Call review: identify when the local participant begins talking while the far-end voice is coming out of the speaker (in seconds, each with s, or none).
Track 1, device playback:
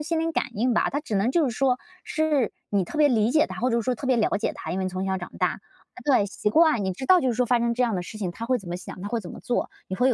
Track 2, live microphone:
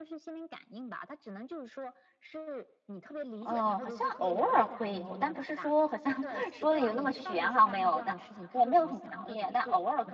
3.4 s